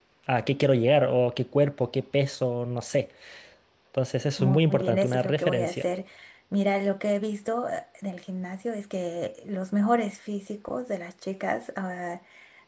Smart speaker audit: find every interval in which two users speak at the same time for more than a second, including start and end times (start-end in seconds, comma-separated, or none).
4.4-5.8